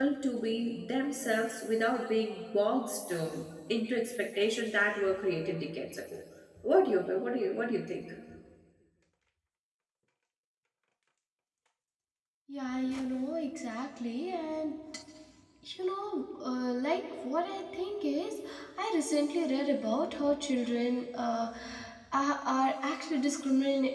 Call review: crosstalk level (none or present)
none